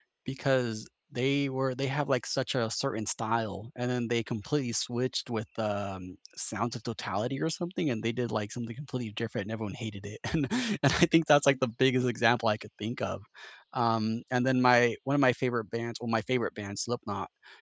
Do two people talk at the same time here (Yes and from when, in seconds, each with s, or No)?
No